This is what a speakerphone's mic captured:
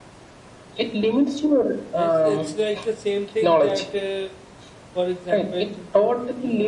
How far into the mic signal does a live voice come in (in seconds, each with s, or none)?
1.8 s